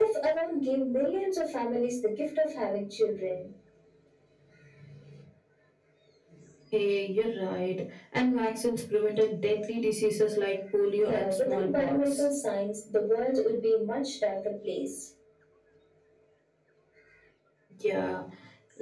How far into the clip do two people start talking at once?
11 s

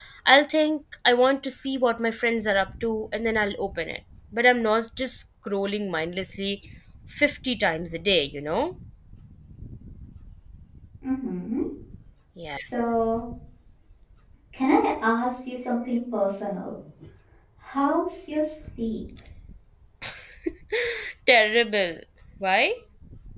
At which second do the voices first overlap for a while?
none

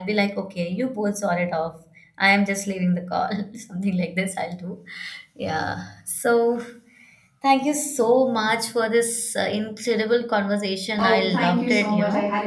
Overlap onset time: 11 s

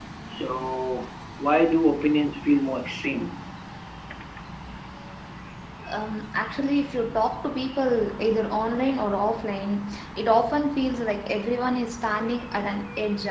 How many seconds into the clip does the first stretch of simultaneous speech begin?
none

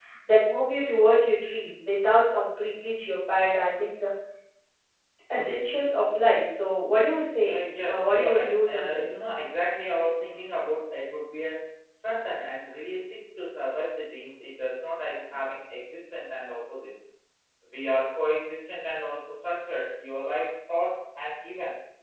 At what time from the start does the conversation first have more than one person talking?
7 s

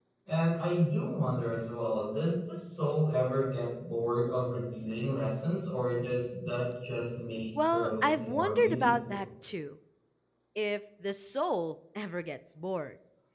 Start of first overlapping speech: 8 s

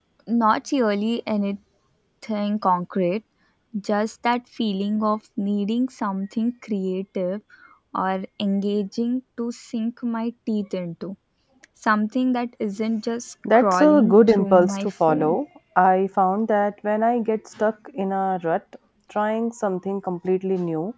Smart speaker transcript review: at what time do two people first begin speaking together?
13 s

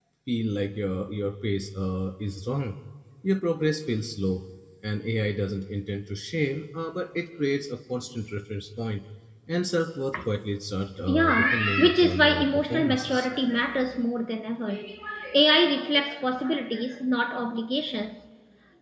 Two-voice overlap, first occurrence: 11 s

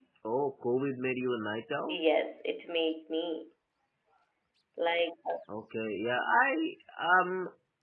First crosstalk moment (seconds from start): none

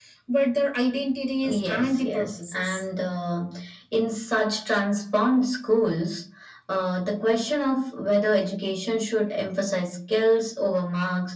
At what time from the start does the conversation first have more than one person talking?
1 s

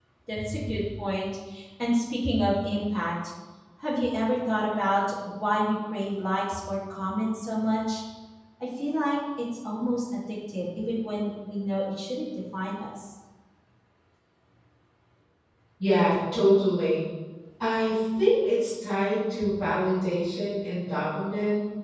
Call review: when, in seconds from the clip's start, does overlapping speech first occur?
none

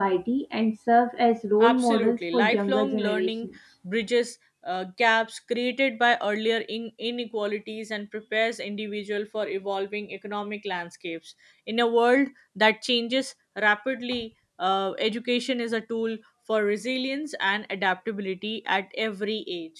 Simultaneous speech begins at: 2 s

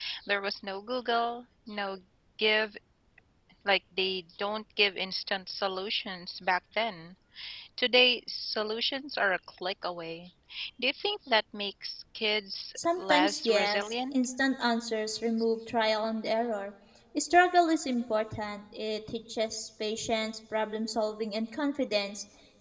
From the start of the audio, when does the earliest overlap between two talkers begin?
13 s

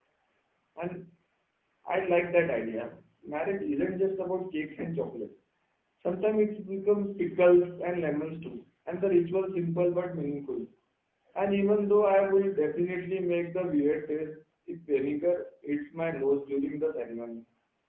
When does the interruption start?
none

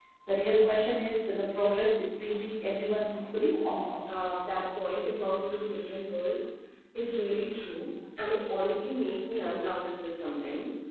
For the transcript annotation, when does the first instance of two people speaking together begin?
none

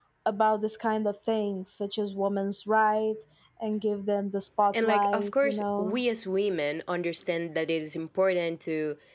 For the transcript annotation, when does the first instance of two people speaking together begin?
5 s

